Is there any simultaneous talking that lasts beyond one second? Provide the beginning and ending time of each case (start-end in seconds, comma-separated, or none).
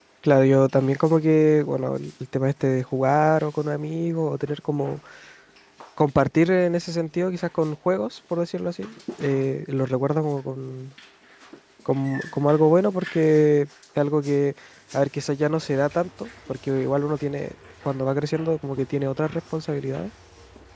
none